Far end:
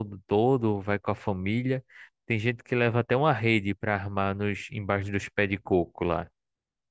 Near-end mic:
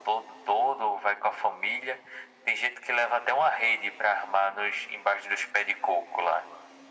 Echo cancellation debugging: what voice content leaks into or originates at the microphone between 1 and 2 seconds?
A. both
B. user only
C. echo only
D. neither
C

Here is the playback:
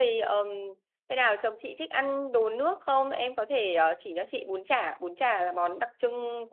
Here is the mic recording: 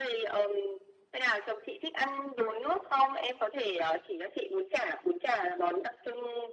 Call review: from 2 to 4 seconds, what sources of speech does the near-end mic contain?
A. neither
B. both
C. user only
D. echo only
D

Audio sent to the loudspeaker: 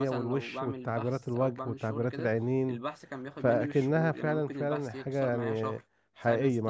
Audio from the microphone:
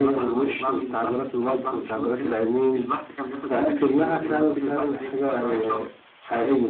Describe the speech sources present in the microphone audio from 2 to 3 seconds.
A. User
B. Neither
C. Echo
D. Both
C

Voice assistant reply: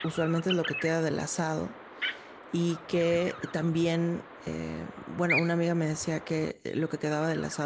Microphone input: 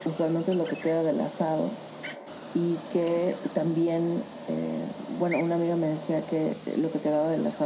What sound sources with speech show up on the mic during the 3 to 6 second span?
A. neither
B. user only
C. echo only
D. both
C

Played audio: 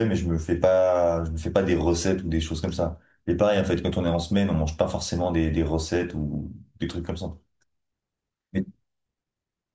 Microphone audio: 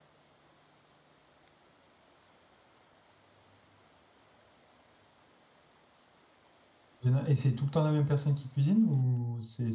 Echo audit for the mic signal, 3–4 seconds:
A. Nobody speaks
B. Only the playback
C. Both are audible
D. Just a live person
A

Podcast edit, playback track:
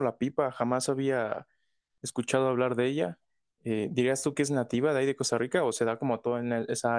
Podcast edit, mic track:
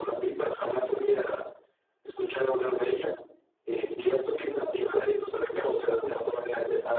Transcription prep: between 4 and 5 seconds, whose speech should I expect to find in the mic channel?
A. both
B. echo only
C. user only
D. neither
B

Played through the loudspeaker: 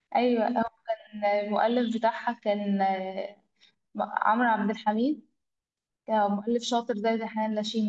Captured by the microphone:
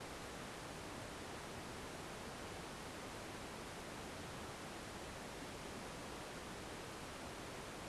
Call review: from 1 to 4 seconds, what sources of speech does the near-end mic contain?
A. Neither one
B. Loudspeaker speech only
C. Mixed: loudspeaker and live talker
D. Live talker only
A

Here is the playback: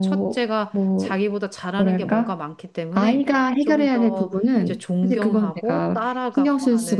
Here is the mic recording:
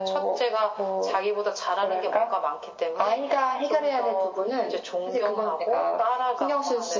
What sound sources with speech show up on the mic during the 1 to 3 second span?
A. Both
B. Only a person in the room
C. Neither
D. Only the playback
D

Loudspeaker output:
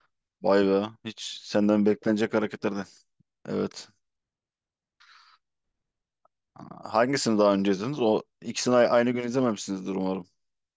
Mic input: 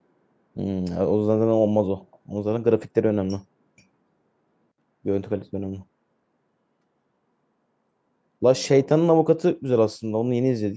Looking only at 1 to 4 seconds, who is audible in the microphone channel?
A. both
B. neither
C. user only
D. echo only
C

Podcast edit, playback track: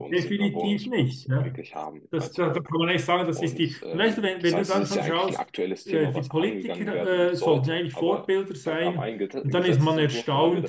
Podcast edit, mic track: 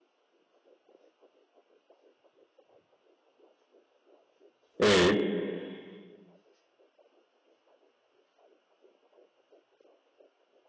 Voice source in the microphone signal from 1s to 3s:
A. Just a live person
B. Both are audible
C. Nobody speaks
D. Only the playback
C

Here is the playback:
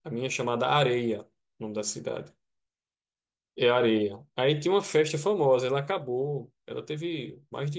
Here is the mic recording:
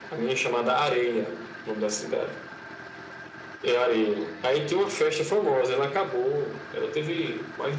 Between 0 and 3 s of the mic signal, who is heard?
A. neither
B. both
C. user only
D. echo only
D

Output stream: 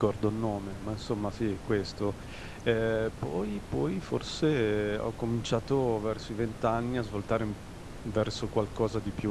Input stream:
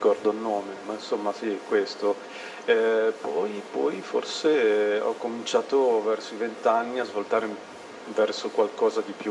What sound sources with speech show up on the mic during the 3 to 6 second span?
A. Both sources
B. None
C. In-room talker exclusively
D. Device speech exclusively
D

